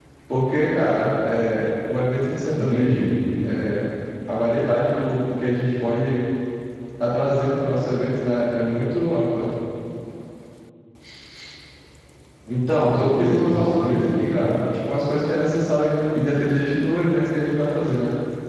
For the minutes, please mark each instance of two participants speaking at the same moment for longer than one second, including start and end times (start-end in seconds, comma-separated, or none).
12.8-14.1